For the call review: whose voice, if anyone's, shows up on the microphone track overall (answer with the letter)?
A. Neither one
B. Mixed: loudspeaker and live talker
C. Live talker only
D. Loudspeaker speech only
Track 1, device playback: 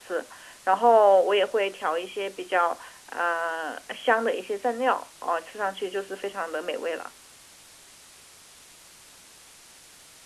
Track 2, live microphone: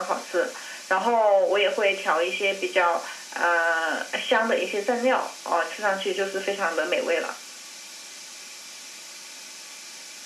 D